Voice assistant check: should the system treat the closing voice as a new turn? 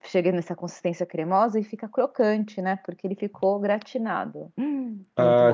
Yes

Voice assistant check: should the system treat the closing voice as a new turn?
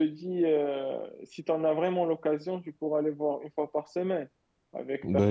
Yes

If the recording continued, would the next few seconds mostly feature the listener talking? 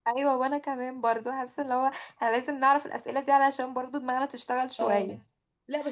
Yes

